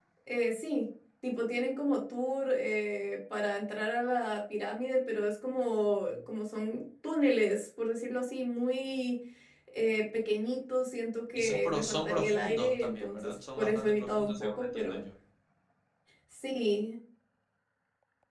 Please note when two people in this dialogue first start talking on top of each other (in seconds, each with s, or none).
11.3 s